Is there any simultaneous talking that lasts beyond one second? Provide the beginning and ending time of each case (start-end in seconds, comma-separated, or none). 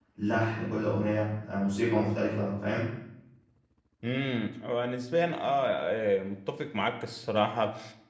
none